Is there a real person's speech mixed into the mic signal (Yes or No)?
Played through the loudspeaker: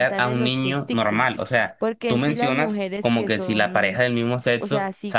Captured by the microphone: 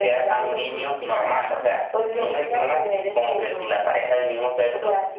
Yes